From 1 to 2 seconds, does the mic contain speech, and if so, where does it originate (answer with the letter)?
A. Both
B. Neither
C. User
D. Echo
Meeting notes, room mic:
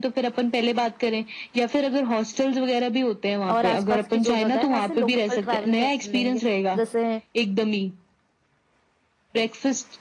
D